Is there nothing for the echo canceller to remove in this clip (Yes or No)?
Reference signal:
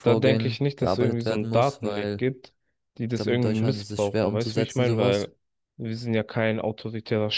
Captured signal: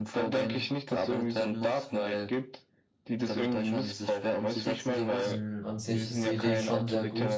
No